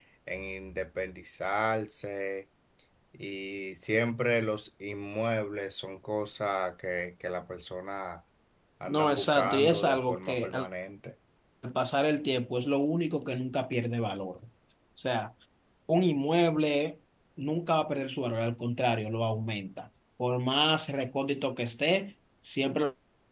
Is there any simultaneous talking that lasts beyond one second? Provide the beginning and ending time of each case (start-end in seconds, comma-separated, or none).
8.9-10.7